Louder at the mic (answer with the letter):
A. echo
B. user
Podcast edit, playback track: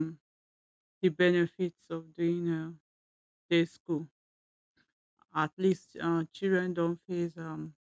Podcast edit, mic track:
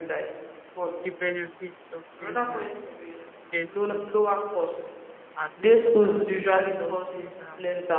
B